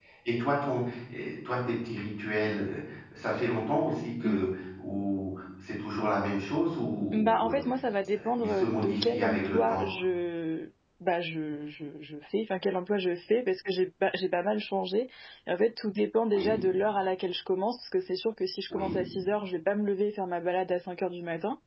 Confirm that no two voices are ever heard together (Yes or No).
No